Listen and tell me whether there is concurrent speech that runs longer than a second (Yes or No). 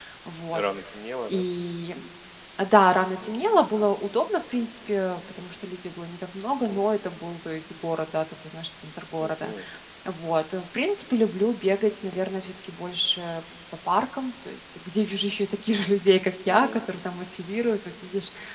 No